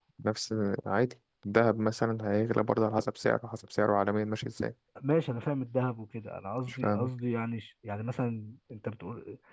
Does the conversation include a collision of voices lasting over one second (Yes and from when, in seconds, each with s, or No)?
No